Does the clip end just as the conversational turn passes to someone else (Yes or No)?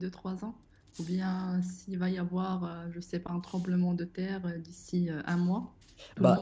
Yes